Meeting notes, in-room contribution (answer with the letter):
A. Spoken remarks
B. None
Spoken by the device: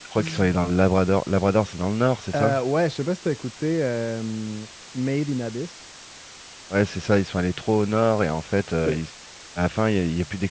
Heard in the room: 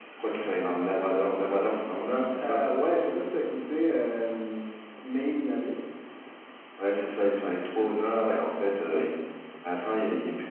B